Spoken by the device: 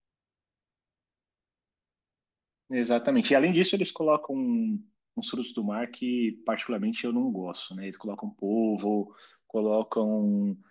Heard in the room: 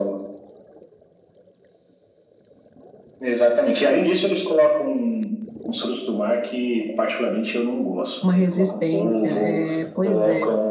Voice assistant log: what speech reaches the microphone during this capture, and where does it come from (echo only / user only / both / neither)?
both